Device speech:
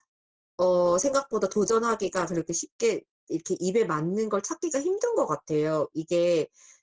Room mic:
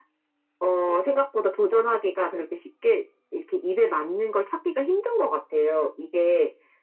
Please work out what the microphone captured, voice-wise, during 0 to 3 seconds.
echo only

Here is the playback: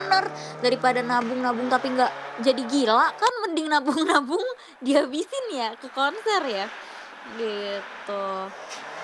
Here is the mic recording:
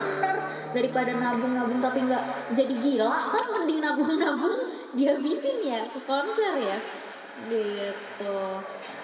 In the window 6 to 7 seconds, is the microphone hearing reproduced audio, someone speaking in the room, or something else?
echo only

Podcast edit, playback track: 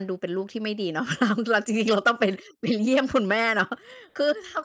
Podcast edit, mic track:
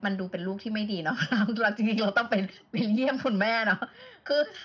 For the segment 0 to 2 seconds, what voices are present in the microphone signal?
echo only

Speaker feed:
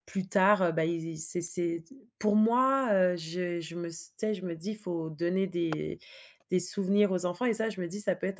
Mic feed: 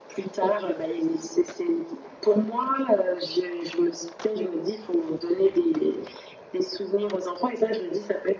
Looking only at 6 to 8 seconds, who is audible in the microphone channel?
echo only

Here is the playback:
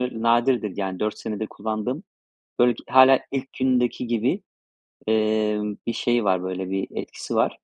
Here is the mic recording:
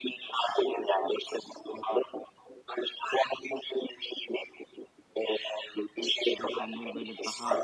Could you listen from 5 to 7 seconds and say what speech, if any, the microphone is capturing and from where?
both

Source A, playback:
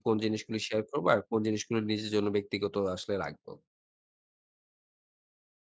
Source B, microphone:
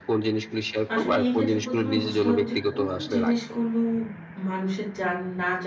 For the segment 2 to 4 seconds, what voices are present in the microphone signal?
both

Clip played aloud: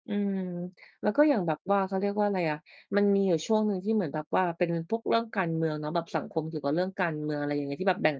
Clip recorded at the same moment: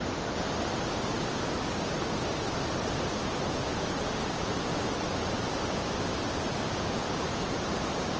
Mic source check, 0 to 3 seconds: neither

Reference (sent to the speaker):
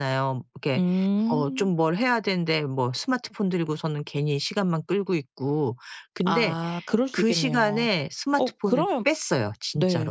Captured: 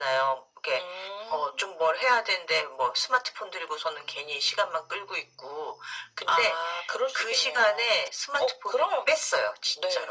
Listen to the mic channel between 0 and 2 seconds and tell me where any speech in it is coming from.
echo only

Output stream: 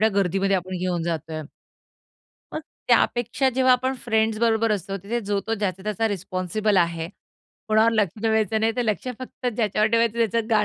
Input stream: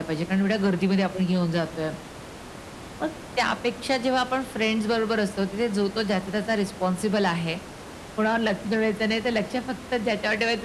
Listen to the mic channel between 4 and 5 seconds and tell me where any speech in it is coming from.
echo only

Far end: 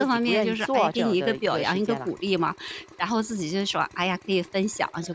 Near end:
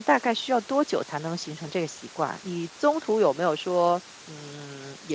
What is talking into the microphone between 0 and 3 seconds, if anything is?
user only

